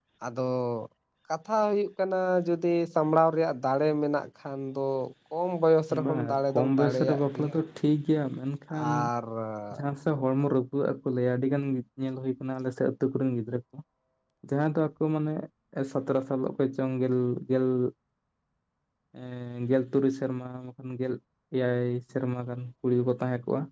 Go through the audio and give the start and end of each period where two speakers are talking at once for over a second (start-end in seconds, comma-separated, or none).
6.0-7.6